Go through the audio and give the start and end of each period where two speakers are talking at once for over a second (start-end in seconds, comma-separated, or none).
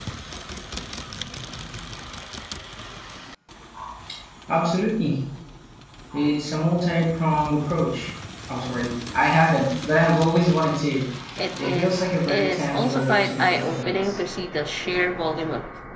11.6-14.2